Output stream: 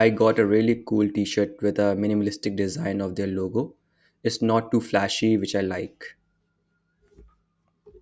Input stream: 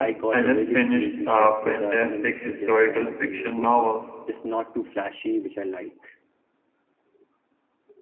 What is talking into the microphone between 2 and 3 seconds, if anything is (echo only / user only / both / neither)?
both